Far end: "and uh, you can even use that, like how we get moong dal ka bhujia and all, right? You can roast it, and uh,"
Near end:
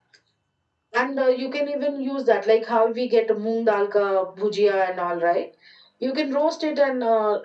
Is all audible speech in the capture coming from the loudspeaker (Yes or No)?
Yes